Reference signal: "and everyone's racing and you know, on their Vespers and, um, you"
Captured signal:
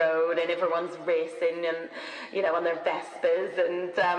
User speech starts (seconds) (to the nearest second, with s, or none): none